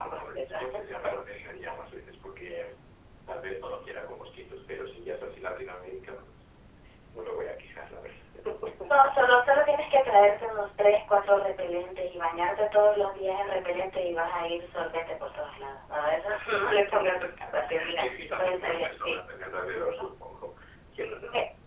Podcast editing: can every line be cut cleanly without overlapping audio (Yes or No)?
No